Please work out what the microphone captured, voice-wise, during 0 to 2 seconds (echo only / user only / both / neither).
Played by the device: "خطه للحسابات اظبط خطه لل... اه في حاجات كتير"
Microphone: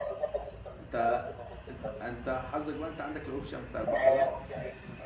both